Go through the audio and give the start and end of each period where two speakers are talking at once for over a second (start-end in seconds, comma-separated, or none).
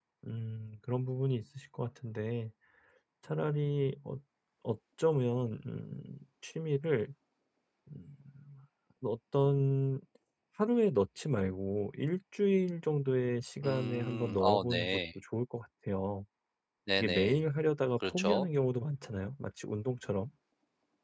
13.6-15.0